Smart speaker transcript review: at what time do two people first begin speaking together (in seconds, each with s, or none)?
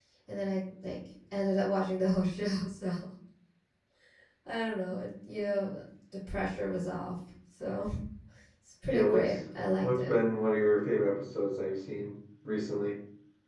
8.9 s